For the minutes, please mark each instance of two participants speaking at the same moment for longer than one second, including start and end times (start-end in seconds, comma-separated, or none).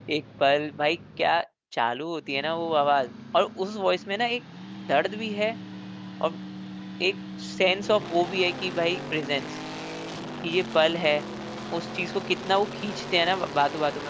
none